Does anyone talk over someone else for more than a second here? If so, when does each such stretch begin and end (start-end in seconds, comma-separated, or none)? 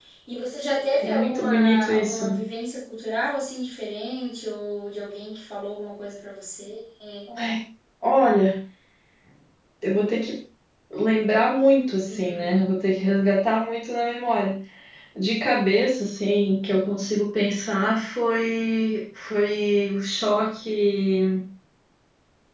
1.0-2.4